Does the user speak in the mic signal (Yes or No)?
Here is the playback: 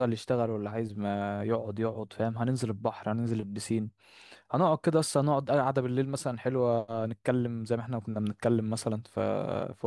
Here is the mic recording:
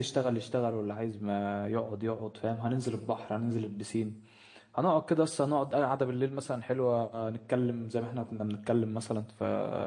No